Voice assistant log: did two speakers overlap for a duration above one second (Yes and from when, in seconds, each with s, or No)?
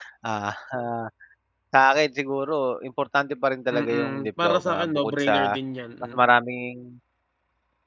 Yes, from 3.7 s